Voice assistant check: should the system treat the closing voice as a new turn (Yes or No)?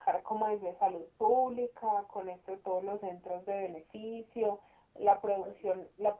No